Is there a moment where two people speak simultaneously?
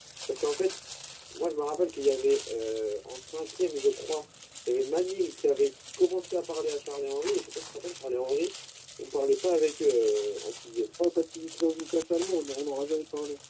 No

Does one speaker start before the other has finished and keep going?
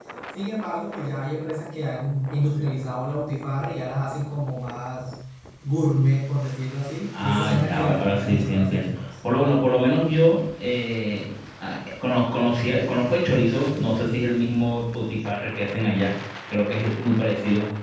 Yes, from 7.1 s

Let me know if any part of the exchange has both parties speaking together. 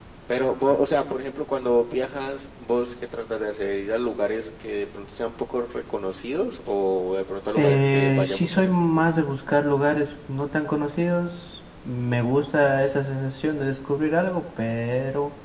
Yes, from 7.6 s

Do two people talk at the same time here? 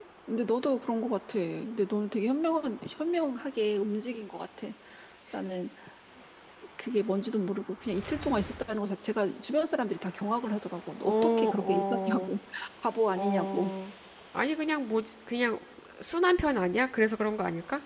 Yes, from 11.0 s

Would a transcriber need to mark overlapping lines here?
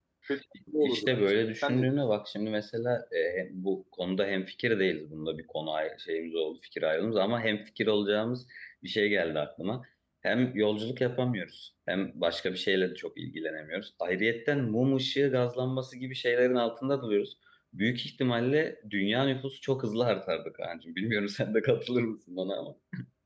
Yes, from 0.8 s

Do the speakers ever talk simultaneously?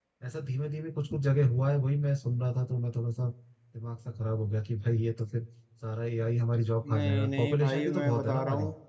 Yes, from 6.8 s

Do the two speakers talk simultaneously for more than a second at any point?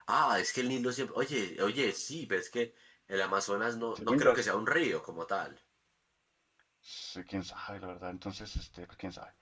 No

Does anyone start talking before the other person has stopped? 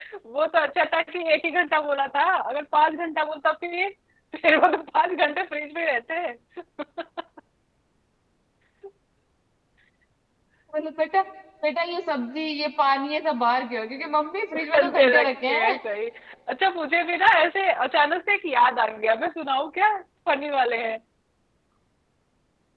Yes, from 14.5 s

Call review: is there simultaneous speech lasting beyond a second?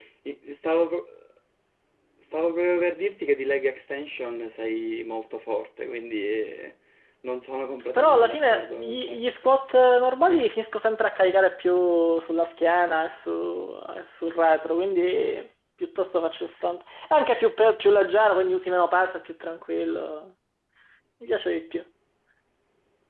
Yes, from 7.9 s

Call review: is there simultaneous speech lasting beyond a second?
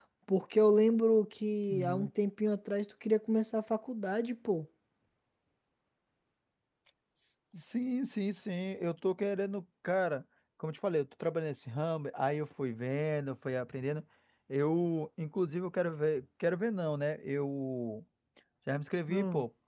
No

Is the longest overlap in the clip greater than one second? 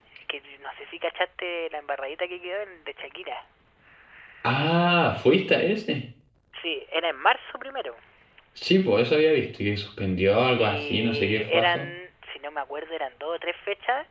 Yes, from 10.6 s

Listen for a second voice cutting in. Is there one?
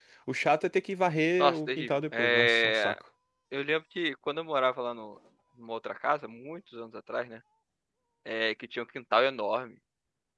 Yes, from 1.4 s

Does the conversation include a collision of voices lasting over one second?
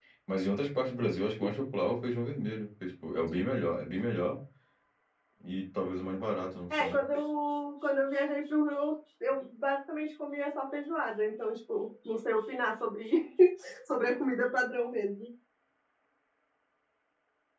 No

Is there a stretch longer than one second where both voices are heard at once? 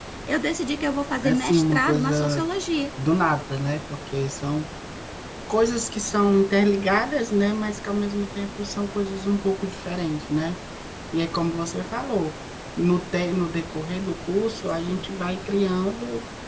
Yes, from 1.2 s

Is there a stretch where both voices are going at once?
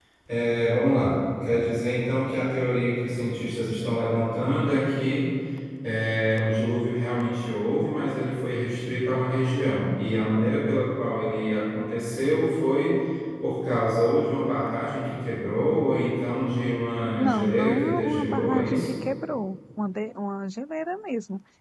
Yes, from 17.2 s

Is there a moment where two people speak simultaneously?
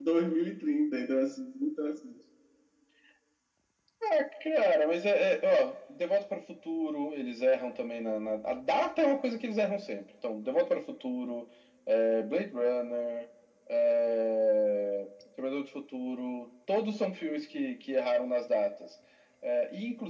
No

